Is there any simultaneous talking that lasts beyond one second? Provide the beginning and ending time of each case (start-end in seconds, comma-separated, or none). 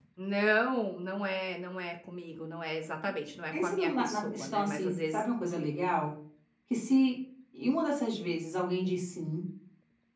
3.5-5.2